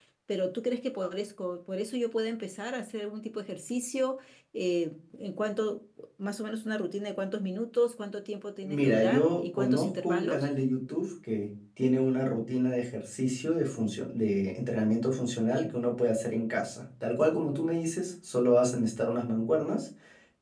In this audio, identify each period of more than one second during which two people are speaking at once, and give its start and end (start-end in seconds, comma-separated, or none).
8.6-10.5